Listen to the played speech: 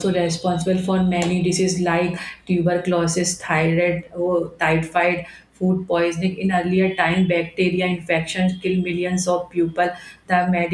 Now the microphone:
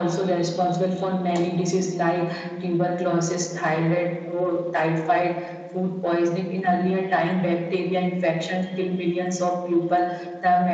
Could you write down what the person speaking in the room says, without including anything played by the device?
none

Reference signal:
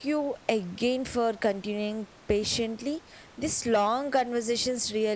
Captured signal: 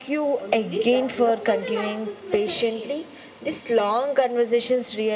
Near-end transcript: only development and access method changes.

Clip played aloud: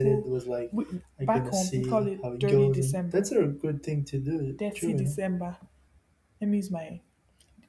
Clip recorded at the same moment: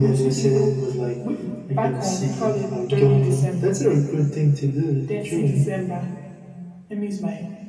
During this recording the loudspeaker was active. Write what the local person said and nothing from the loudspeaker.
none

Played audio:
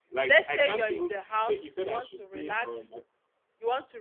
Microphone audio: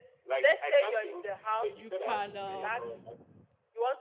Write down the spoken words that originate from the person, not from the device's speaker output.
you can um

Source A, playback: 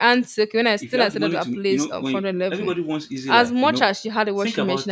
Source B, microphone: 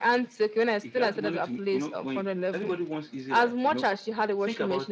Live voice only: none

